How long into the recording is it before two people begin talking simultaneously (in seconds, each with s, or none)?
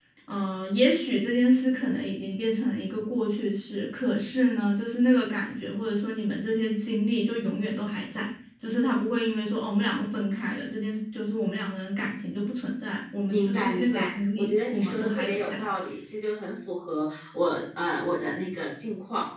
13.3 s